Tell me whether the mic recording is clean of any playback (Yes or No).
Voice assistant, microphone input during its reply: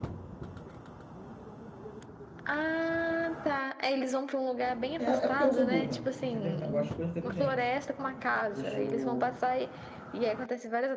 No